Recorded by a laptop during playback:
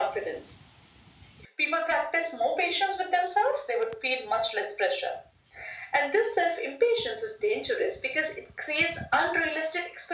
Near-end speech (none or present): none